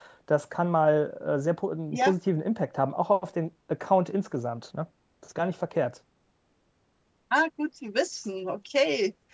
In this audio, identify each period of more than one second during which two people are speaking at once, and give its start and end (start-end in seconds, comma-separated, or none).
none